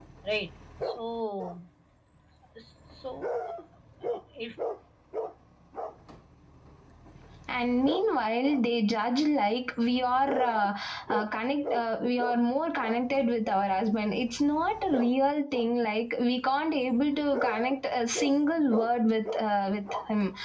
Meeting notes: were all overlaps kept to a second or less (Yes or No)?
Yes